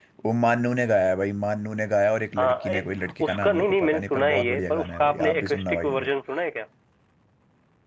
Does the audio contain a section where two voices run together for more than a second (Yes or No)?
Yes